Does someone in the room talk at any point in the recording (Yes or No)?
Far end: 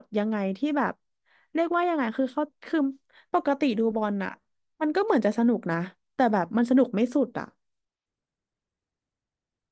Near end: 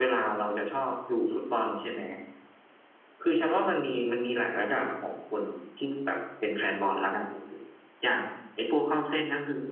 Yes